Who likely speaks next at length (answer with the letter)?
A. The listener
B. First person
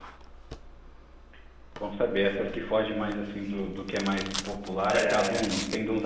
B